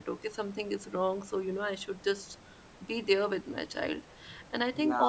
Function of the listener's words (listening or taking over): listening